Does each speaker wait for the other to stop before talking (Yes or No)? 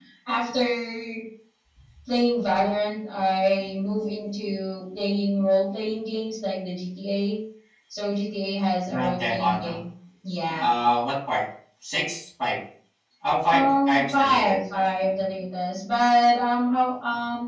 No